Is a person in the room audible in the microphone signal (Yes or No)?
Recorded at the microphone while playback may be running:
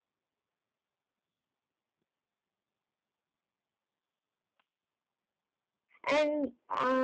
Yes